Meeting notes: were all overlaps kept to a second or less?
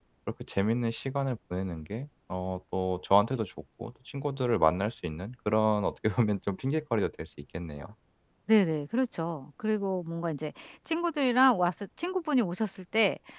Yes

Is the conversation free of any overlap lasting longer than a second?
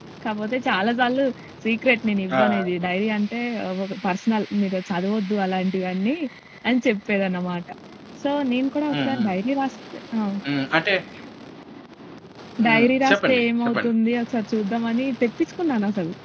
No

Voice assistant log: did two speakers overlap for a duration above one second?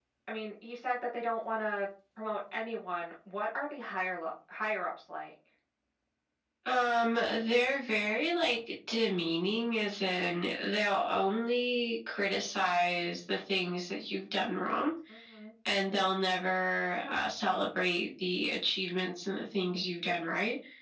No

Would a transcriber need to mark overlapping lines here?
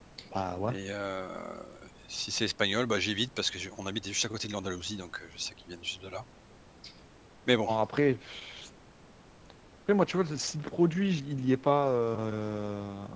No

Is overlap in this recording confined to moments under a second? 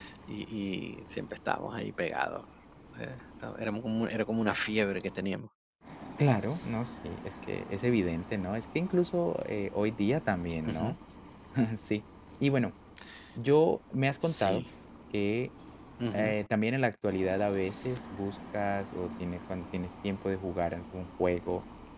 Yes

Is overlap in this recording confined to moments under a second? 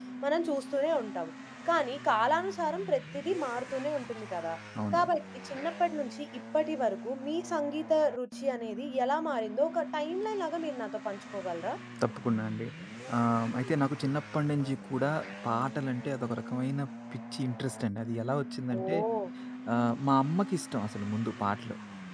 Yes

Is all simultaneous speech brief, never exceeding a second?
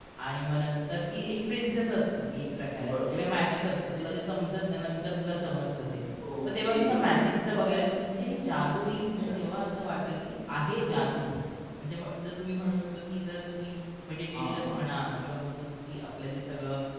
Yes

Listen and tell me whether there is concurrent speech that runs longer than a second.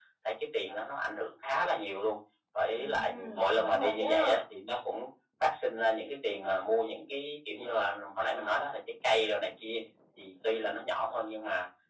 Yes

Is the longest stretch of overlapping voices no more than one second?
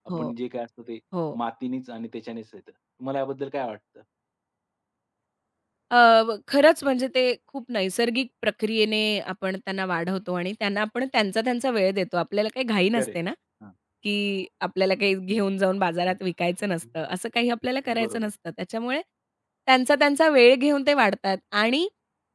Yes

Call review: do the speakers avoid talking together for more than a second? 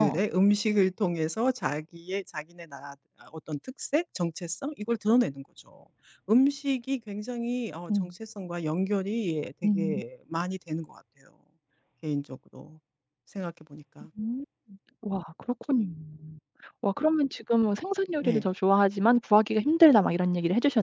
Yes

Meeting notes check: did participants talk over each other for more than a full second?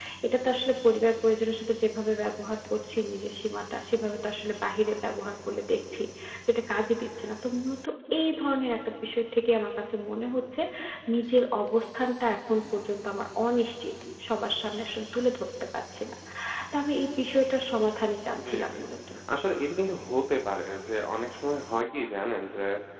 No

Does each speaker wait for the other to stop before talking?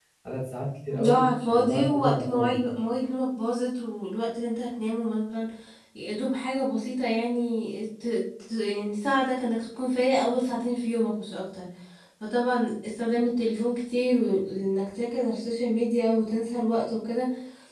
No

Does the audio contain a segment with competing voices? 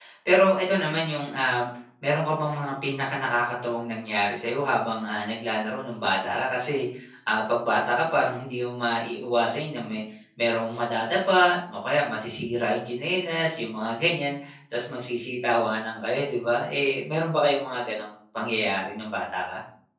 No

